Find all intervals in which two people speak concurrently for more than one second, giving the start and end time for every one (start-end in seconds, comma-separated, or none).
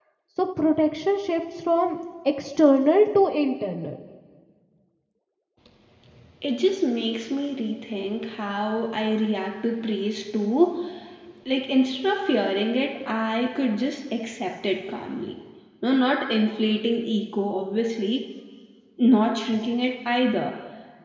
none